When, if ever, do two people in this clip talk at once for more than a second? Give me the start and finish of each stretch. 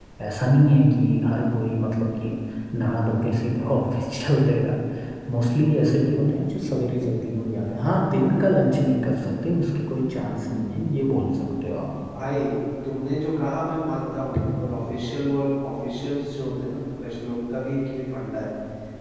none

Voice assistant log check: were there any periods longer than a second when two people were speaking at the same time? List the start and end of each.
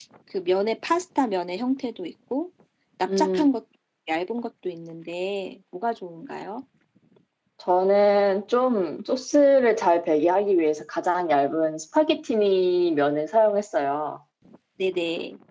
none

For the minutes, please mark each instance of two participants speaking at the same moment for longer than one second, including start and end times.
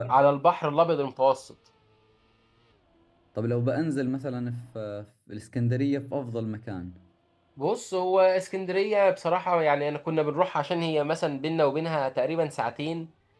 none

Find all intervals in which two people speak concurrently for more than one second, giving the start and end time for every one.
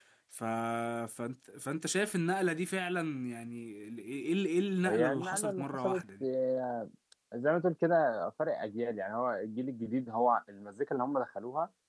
4.8-6.2

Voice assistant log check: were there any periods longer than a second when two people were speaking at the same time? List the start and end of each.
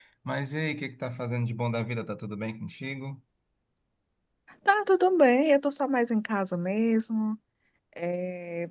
none

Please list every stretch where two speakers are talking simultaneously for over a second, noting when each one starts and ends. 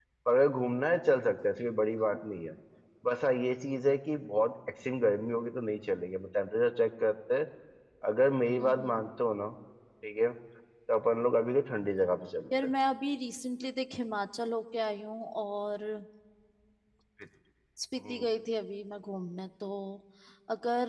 none

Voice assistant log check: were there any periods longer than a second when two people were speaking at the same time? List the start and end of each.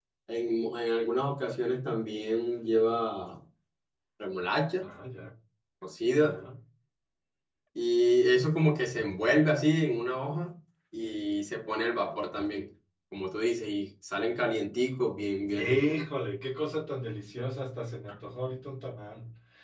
none

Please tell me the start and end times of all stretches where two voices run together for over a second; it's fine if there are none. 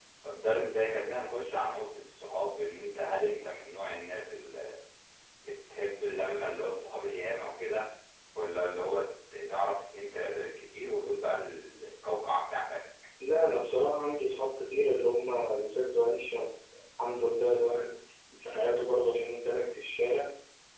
none

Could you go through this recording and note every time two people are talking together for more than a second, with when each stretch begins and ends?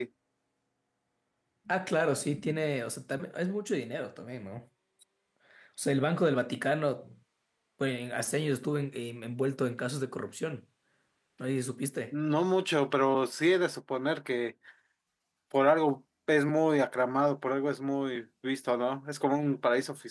none

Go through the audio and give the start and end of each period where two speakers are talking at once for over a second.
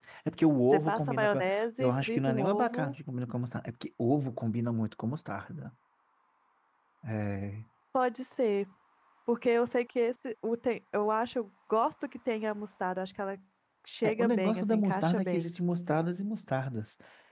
0.7-2.9, 14.0-15.5

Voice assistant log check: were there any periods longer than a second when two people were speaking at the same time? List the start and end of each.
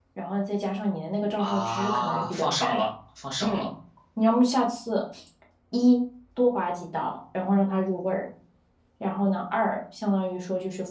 1.4-2.9

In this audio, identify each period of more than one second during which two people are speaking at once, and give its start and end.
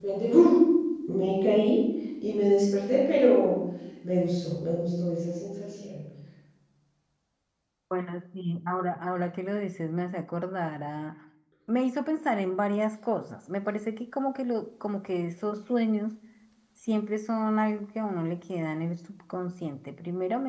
none

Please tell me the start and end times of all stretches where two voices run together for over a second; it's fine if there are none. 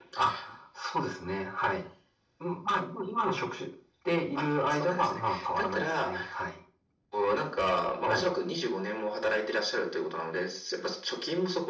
4.3-6.1

